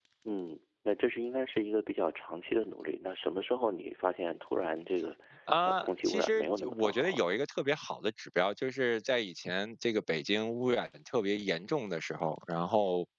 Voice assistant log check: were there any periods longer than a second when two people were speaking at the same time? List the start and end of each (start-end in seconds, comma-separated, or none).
5.6-7.3